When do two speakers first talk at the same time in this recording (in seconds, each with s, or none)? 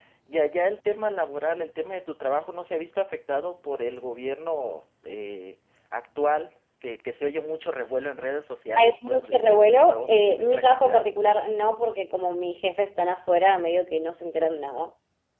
8.8 s